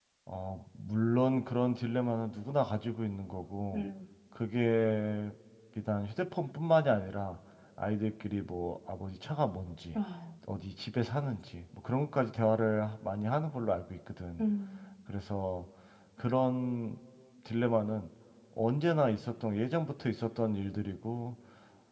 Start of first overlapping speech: none

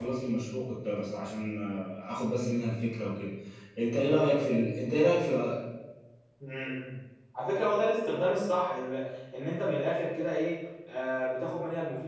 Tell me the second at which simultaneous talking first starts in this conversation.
none

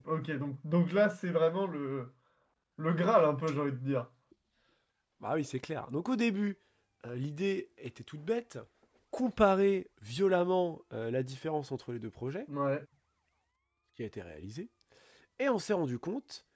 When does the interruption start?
none

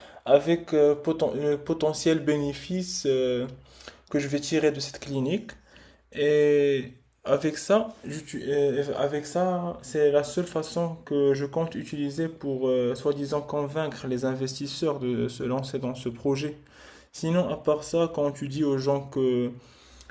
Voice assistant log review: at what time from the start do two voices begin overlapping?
none

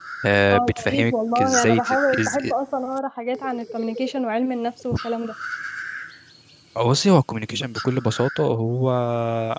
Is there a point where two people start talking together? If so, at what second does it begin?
0.5 s

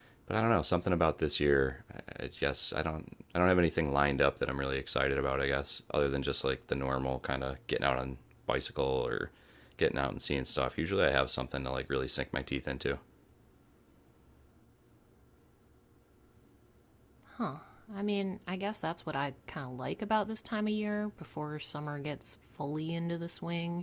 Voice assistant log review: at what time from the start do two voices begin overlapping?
none

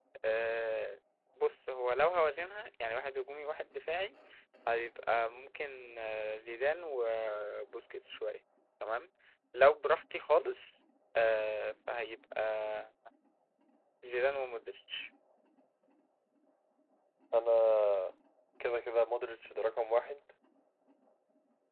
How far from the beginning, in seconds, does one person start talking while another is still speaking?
none

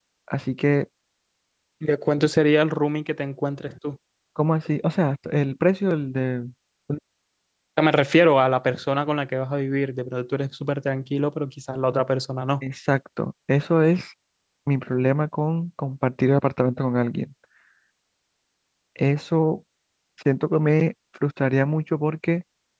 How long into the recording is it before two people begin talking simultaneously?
none

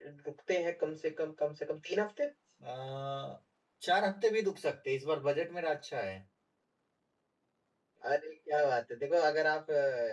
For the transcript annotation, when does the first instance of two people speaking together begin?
none

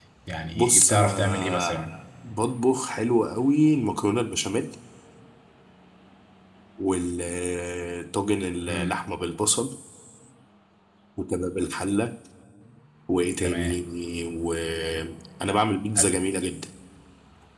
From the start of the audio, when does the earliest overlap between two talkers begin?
0.5 s

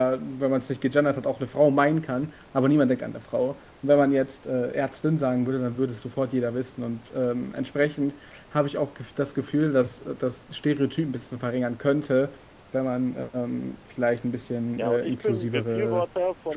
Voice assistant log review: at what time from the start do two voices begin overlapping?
14.8 s

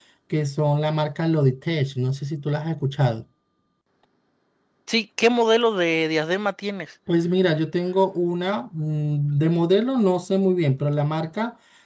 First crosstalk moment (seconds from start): none

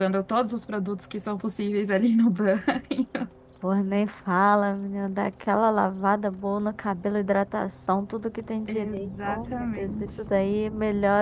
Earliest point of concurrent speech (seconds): 8.7 s

